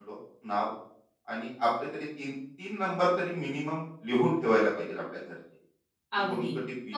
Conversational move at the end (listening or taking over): taking over